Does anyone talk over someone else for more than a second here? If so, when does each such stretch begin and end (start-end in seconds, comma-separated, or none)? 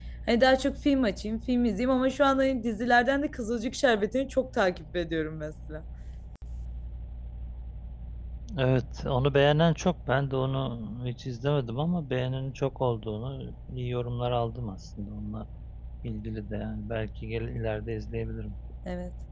none